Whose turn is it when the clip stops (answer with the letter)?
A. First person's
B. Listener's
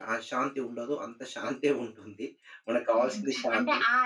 B